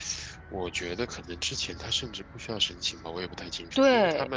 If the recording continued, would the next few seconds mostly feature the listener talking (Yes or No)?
No